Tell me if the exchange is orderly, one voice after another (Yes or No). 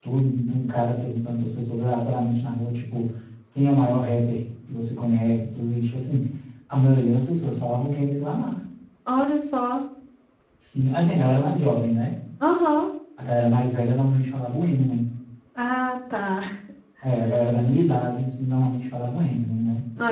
Yes